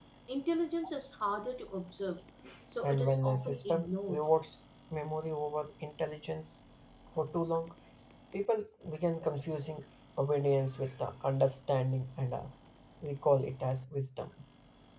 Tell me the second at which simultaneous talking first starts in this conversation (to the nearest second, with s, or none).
3 s